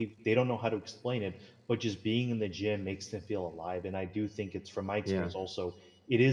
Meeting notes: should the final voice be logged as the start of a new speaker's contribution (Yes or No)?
No